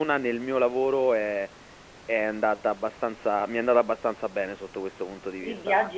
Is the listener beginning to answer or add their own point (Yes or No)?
Yes